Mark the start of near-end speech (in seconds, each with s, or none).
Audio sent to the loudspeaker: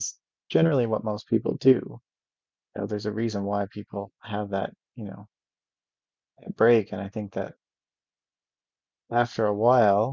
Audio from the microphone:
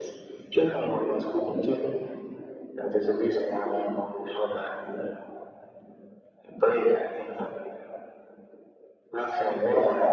none